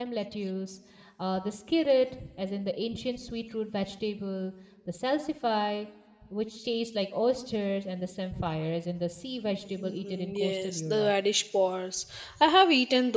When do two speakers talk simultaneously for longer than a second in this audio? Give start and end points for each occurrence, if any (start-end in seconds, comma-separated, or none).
9.8-11.1